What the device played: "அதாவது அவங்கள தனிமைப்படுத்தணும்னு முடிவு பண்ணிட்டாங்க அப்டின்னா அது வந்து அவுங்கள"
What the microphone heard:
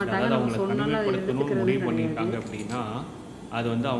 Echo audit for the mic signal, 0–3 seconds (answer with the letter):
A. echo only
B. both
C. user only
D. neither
B